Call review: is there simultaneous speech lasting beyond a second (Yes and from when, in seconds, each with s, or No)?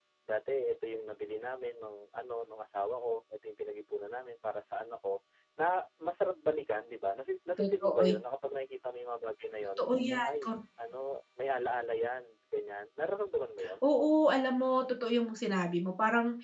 No